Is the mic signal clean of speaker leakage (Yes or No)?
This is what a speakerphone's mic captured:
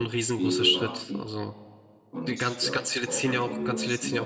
No